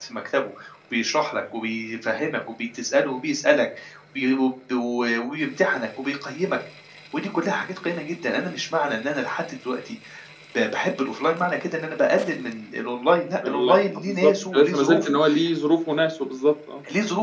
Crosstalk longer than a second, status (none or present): present